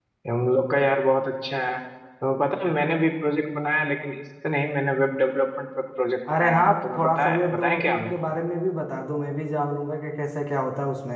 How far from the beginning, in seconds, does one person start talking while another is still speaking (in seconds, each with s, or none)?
6.3 s